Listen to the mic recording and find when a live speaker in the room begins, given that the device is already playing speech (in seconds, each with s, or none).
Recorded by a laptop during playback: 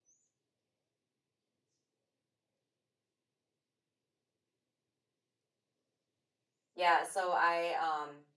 6.7 s